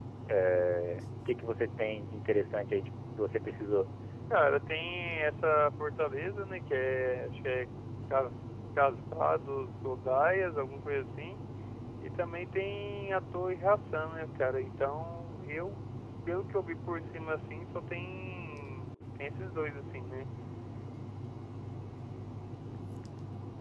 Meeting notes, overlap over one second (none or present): none